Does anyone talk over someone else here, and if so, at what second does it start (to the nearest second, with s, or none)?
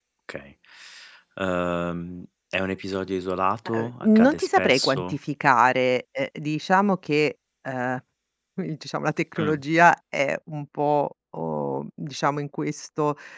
4 s